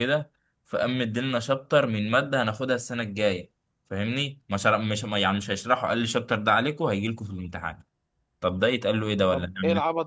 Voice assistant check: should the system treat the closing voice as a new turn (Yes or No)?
Yes